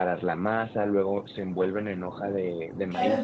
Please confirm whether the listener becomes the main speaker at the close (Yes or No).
Yes